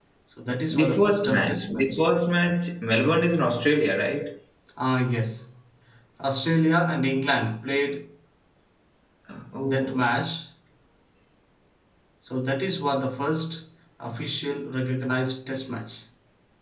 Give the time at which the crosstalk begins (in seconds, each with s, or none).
0.7 s